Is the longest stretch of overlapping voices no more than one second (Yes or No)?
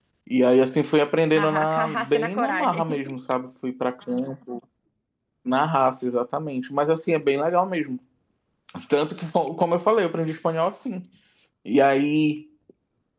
No